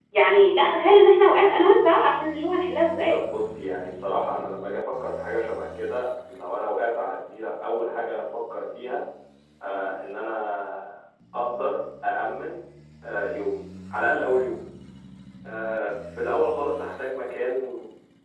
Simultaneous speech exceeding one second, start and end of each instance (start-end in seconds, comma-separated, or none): none